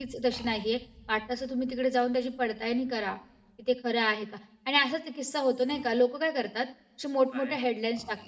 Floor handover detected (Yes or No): No